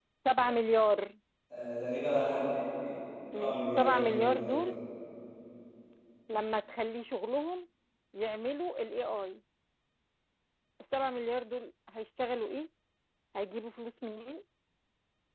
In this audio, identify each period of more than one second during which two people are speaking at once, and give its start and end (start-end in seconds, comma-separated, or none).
3.4-4.8